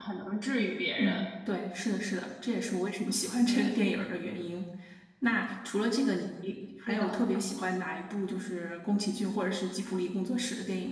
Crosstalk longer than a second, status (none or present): none